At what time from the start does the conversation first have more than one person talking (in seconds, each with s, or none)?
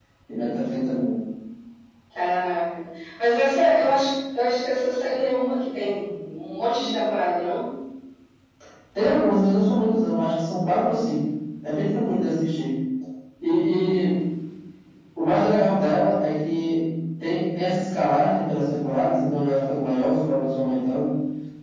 none